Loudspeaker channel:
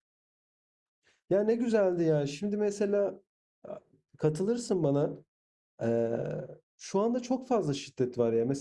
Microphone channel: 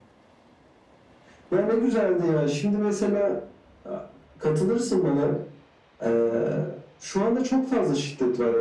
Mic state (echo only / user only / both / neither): echo only